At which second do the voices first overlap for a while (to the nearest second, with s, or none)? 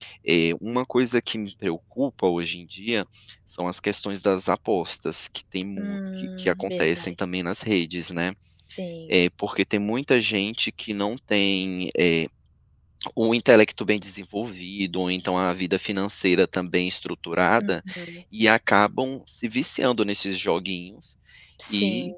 6 s